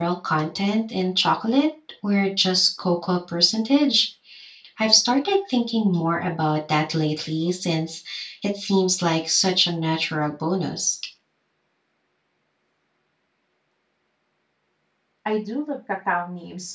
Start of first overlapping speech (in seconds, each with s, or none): none